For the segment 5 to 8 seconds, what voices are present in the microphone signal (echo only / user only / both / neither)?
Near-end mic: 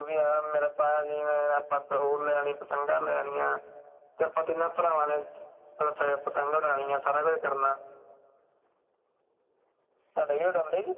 echo only